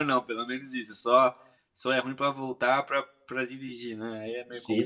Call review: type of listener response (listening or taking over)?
taking over